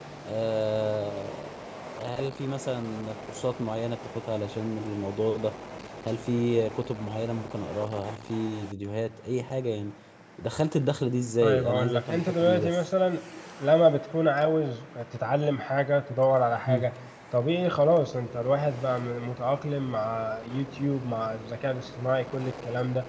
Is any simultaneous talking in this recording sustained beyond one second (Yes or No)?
Yes